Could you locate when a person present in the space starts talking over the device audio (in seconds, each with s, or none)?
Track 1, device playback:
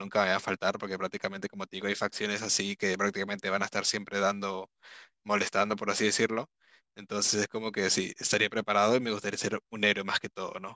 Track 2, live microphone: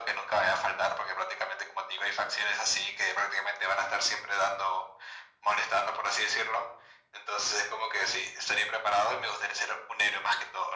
none